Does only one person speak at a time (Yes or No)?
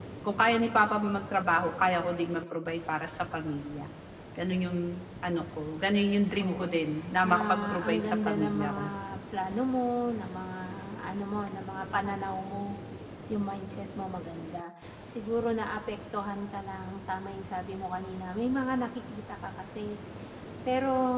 No